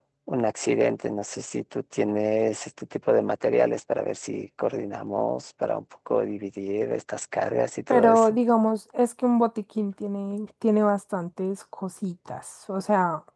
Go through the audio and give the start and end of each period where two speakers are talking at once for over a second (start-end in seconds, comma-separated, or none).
none